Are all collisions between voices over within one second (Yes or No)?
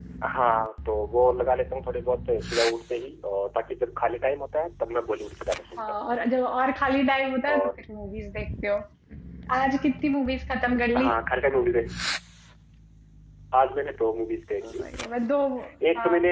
Yes